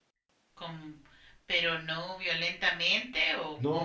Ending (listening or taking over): taking over